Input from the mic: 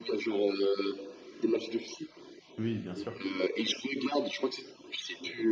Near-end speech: present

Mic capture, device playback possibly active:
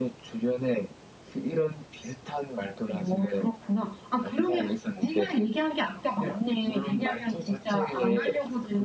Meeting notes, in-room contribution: none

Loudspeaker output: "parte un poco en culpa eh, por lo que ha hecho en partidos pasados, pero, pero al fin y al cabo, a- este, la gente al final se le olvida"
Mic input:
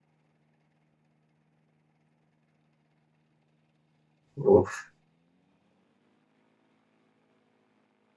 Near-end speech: present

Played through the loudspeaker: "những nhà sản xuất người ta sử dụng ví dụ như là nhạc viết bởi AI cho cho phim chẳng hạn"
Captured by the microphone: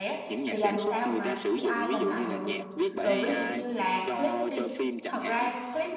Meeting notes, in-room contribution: present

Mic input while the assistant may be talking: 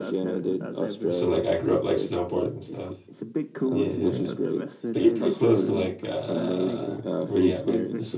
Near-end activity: present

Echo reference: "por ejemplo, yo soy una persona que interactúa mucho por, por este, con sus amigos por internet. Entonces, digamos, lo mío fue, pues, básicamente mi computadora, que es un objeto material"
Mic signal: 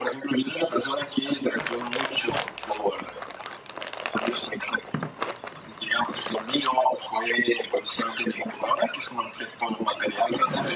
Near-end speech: none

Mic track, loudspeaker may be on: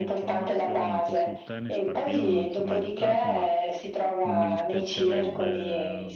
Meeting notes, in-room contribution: present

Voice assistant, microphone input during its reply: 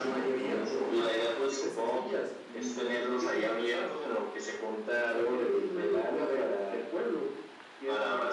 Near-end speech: none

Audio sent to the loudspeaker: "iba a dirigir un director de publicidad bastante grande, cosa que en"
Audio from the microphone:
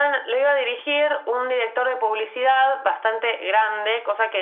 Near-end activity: none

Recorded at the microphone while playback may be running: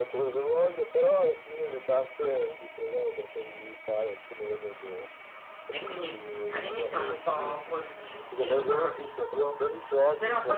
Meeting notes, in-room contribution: present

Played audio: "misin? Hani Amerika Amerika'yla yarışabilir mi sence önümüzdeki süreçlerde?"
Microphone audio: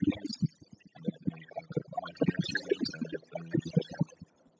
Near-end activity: none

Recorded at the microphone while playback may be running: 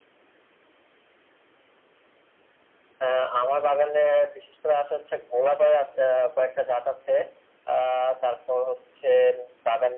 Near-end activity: none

